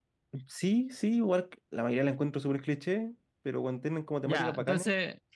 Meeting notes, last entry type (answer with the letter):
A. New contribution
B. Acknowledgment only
A